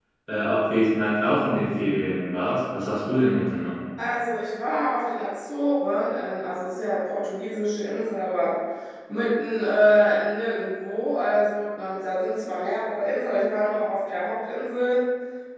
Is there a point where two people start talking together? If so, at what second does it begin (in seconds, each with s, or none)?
none